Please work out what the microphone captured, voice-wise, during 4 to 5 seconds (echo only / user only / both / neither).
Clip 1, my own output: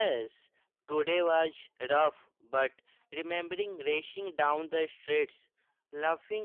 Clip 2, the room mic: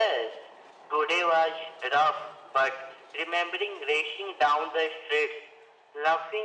echo only